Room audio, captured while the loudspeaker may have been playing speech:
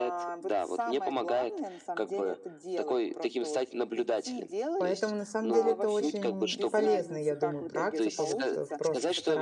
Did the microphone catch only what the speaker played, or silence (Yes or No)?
No